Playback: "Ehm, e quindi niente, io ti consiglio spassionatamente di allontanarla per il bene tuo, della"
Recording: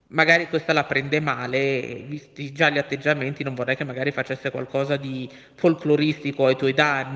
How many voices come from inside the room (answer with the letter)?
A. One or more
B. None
A